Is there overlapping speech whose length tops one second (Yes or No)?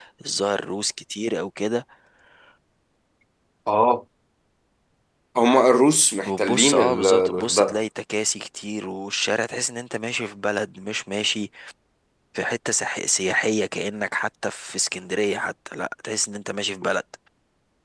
Yes